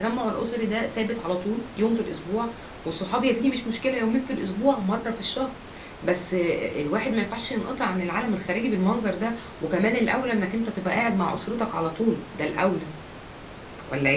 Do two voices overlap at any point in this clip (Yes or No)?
No